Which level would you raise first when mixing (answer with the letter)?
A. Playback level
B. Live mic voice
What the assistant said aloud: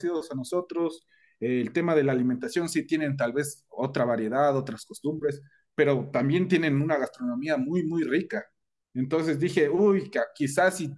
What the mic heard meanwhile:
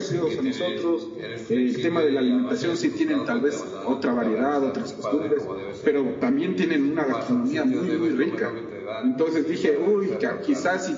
B